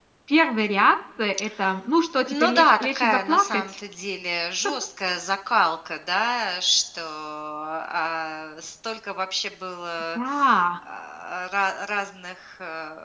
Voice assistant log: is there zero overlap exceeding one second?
No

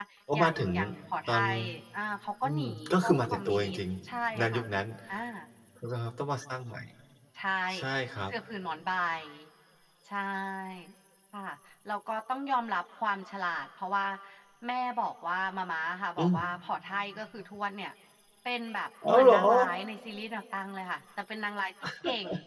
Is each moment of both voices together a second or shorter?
No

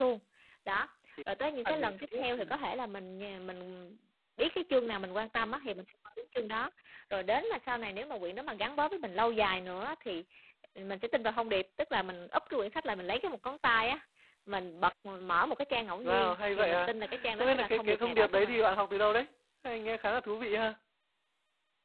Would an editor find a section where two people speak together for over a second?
Yes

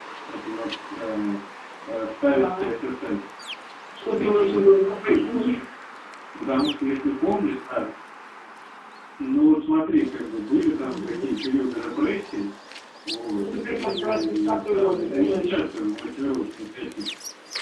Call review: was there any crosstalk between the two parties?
Yes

